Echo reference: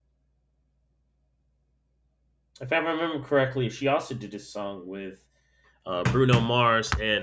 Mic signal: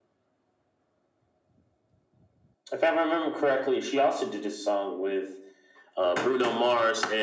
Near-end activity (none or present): none